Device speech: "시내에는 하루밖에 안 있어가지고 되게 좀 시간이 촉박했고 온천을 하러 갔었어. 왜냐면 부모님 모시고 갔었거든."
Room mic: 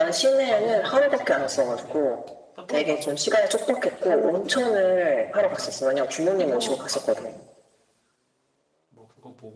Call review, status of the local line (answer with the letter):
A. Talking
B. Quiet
A